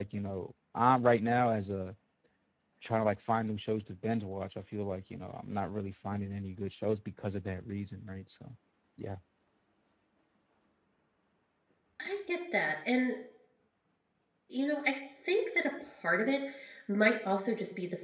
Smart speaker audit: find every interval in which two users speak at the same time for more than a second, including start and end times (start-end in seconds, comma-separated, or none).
none